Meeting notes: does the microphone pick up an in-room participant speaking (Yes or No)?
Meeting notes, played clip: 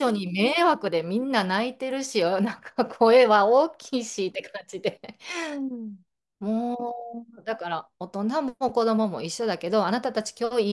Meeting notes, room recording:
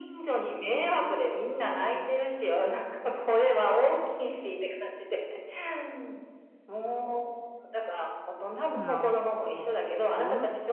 Yes